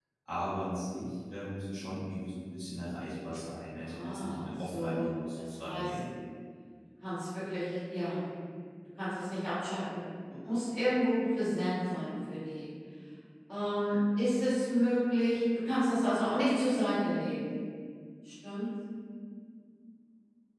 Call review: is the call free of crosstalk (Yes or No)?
No